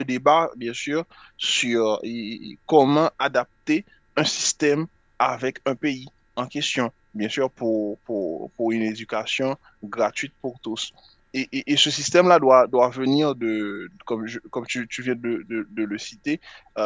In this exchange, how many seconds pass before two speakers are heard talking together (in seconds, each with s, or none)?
none